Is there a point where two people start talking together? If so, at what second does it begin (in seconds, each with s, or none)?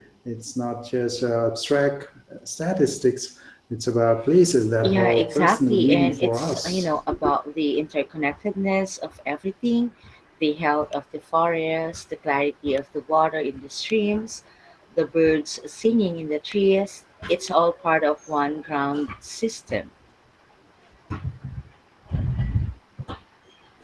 4.8 s